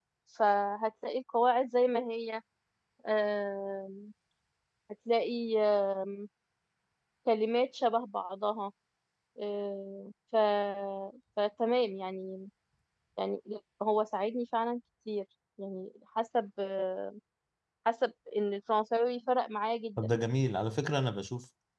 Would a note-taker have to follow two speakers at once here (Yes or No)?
No